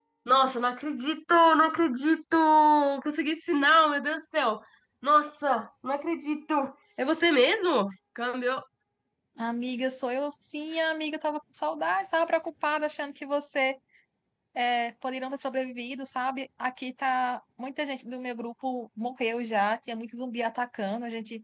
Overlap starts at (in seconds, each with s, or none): none